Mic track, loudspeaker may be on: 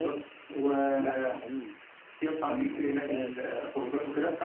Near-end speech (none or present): present